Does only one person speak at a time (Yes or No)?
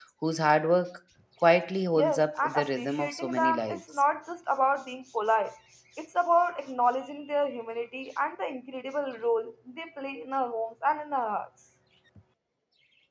No